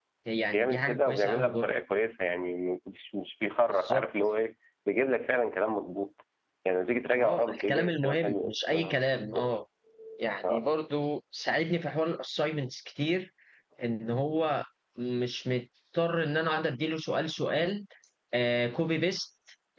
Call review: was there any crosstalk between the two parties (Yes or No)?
Yes